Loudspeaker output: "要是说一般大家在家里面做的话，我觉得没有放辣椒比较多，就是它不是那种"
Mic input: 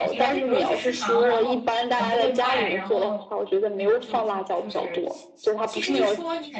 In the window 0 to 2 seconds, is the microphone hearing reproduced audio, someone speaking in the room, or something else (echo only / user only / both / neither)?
both